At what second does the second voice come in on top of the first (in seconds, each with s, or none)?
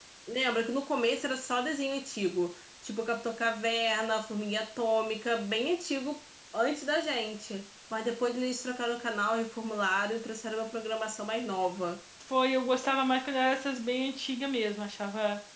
none